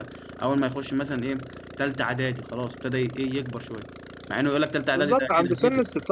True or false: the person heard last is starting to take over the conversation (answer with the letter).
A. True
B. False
A